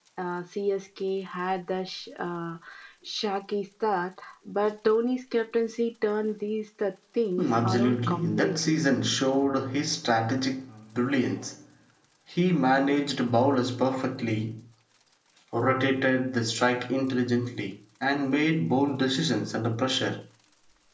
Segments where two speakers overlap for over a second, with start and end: 7.4-8.8

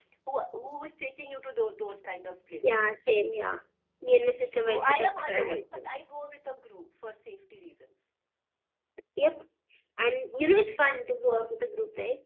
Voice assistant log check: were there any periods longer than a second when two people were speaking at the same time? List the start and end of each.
4.5-5.8

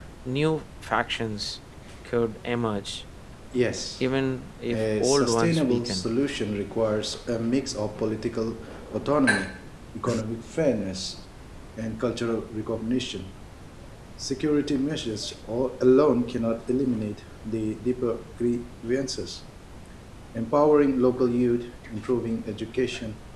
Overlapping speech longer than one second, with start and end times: 4.7-6.1

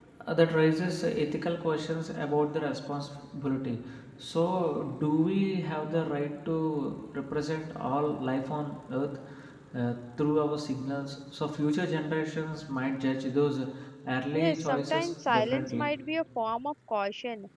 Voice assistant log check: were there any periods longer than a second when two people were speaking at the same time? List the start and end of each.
14.3-15.9

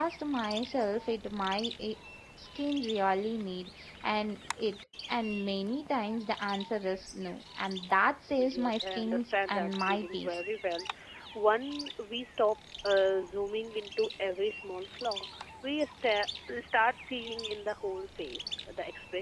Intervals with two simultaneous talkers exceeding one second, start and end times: 8.4-10.4

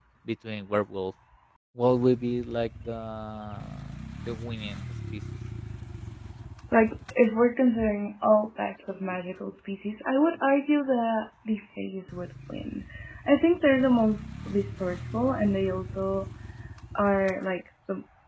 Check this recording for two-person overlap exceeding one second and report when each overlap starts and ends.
none

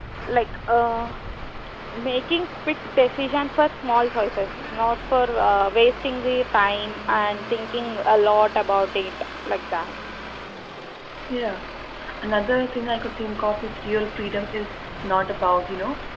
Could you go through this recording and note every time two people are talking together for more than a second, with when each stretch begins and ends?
none

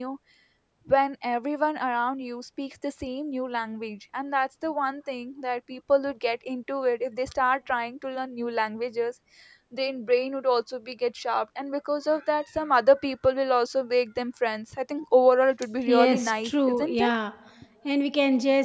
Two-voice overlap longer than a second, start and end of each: 15.8-17.1

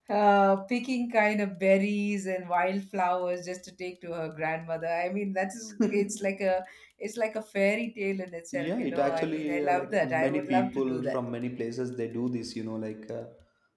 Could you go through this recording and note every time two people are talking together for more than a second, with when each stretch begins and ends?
8.5-11.2

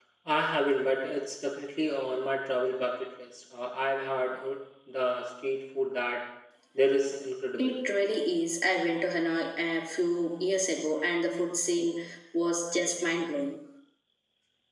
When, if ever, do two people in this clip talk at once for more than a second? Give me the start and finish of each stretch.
none

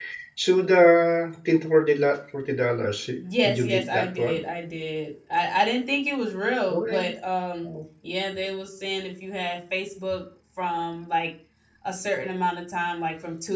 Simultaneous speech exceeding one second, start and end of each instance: 3.2-4.4

